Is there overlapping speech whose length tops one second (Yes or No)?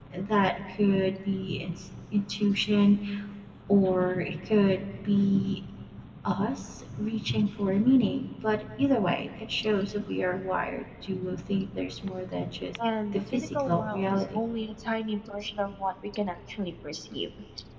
Yes